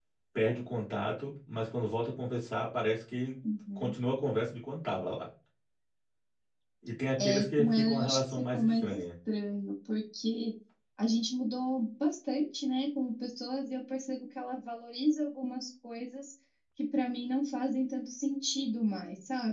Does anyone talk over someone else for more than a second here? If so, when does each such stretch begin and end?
7.2-9.0

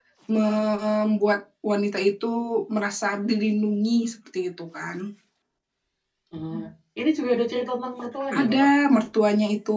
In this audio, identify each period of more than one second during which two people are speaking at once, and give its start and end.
none

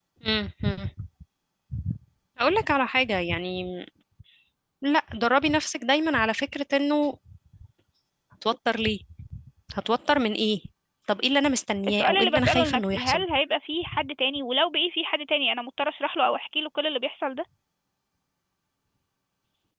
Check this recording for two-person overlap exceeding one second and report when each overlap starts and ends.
11.9-13.2

